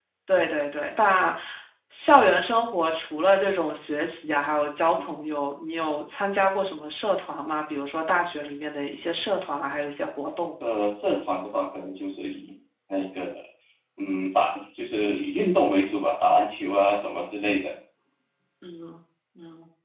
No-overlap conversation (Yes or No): Yes